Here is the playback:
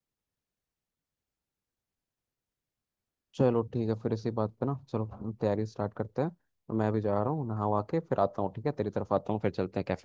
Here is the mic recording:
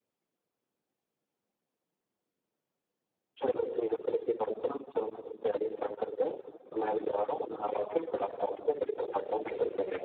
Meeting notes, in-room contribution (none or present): none